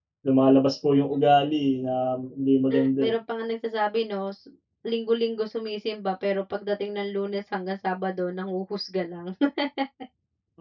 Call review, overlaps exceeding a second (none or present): none